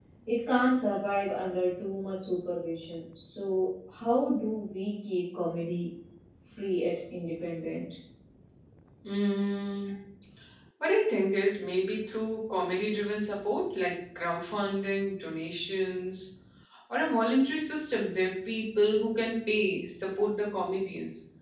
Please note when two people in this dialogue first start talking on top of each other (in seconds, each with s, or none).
none